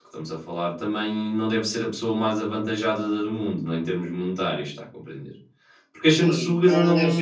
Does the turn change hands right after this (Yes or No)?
Yes